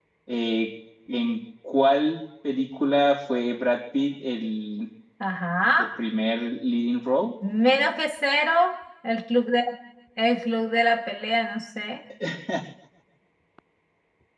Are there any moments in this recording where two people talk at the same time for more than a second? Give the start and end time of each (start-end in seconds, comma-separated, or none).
none